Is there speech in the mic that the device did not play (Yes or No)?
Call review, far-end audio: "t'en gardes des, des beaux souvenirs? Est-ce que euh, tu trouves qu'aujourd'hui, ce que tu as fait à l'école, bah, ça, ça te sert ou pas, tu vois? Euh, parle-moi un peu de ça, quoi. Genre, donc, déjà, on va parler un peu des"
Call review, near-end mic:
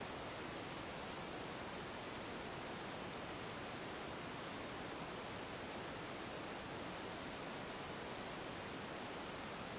No